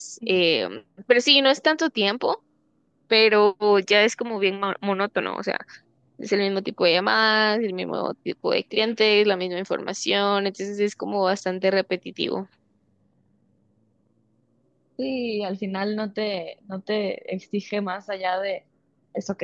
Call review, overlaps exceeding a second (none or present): none